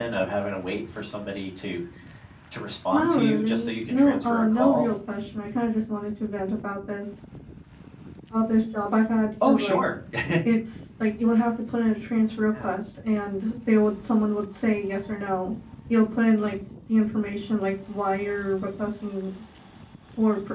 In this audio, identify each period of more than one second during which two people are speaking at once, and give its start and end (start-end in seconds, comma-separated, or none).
2.9-4.9